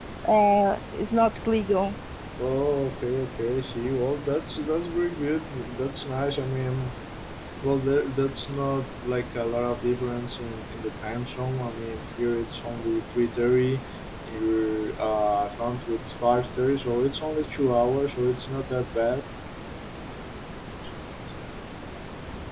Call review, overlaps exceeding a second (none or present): none